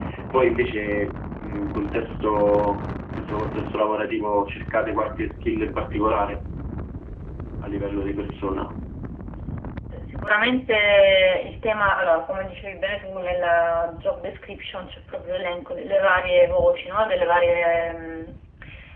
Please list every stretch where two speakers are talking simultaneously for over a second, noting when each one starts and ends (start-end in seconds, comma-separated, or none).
none